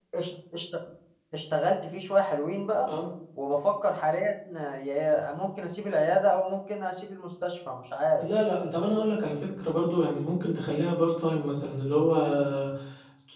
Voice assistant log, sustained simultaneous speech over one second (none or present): none